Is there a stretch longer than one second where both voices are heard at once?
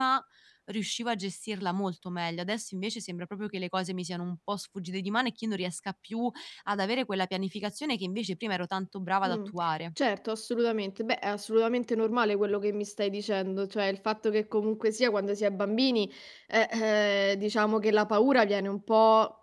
No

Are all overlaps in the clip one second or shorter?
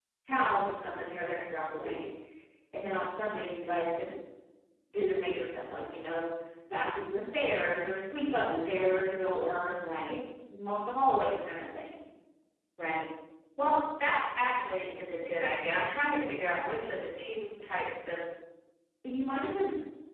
Yes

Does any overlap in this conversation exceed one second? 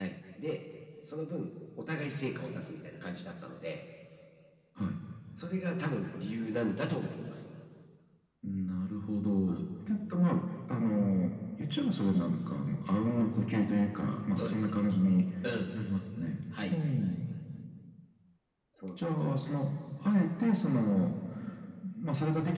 No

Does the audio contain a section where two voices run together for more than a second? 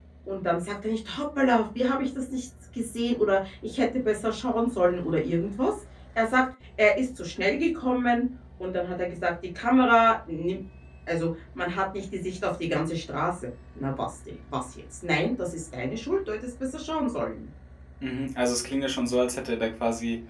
No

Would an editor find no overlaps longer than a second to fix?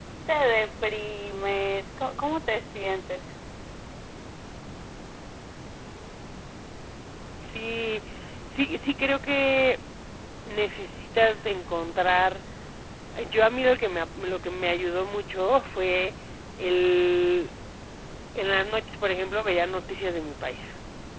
Yes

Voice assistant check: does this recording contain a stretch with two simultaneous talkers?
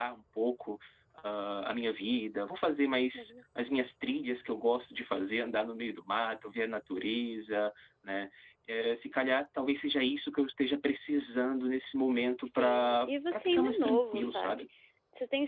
Yes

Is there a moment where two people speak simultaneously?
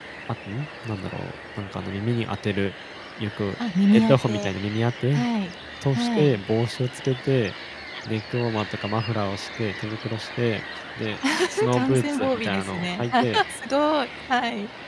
Yes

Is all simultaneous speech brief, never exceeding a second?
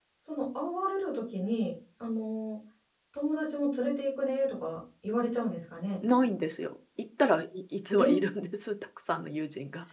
Yes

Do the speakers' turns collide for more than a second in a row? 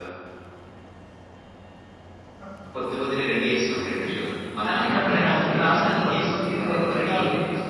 Yes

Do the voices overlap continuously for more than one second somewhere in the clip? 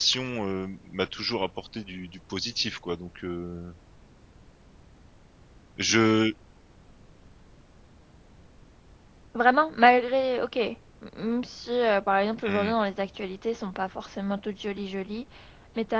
No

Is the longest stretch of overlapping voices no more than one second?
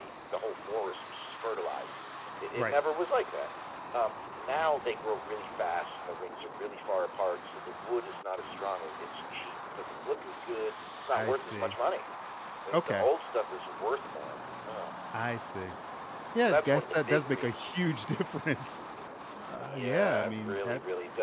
No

